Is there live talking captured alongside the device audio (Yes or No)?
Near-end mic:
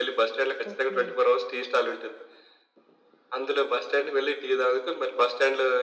Yes